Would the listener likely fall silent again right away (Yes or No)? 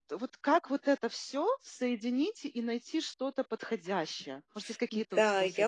No